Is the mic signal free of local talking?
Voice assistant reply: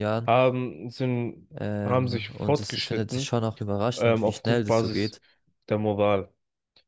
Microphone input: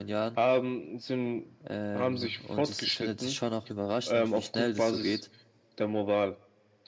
Yes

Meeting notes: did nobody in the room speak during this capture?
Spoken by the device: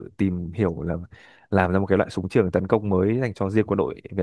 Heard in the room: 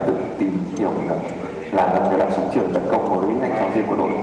No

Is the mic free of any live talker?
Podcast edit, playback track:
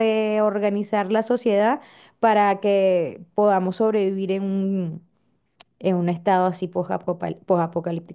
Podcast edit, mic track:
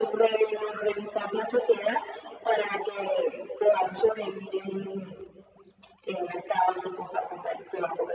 Yes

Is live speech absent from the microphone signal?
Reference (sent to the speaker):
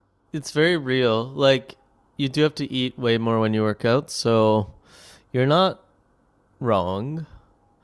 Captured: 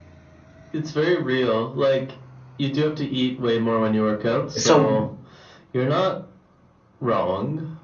No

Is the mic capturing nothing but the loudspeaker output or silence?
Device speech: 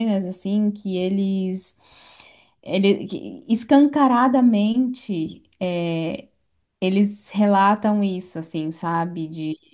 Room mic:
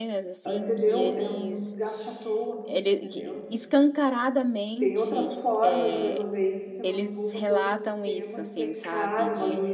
No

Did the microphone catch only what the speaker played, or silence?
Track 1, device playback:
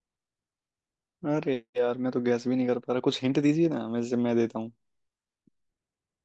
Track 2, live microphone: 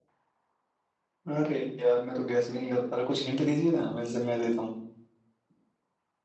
Yes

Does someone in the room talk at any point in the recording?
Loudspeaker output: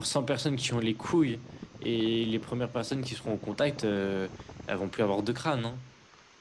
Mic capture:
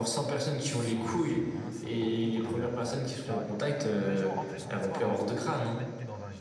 Yes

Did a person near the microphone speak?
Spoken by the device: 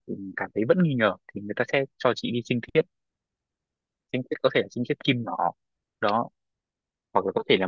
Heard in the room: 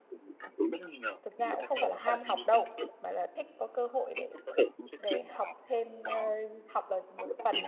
Yes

